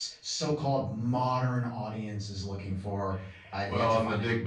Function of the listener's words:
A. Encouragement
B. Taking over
B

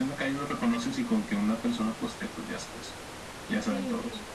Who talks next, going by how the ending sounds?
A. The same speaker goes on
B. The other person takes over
B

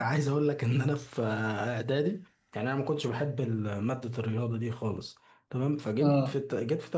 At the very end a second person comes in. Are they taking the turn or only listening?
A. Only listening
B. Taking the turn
A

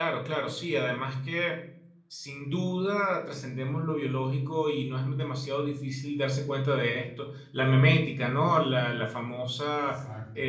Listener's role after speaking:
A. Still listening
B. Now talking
A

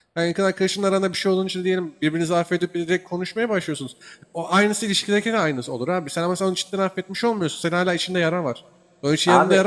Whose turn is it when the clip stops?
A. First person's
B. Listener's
A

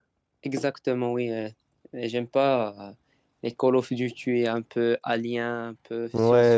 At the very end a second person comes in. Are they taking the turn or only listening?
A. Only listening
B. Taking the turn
B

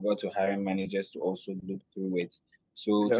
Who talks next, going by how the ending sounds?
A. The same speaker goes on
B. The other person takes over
A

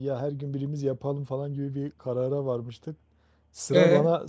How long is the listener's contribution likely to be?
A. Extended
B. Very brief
B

